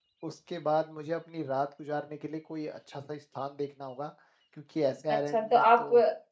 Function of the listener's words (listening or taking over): taking over